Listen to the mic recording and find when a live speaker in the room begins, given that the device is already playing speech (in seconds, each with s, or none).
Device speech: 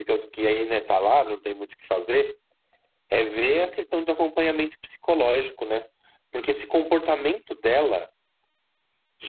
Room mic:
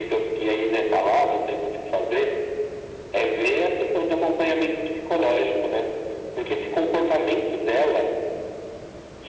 none